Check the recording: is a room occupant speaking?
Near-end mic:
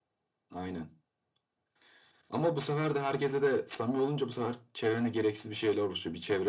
No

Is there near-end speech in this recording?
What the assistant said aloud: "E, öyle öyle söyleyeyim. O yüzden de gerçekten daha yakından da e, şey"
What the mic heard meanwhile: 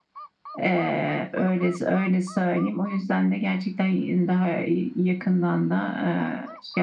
No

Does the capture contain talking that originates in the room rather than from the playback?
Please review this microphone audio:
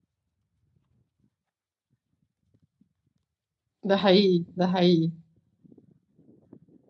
Yes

